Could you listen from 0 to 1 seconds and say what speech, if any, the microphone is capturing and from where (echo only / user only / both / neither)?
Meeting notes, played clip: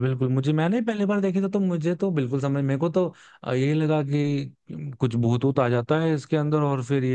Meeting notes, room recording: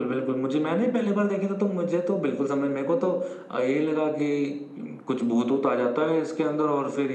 both